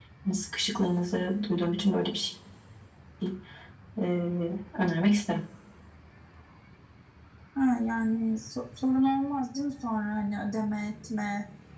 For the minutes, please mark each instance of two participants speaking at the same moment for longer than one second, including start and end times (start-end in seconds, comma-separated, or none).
none